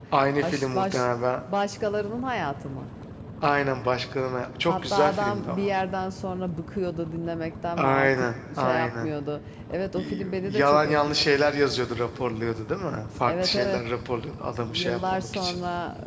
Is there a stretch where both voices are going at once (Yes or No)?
Yes